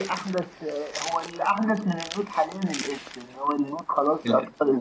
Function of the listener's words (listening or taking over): listening